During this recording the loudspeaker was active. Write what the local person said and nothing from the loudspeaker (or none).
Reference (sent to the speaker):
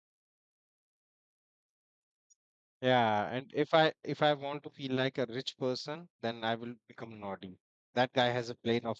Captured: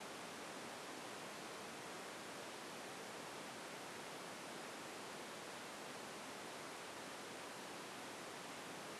none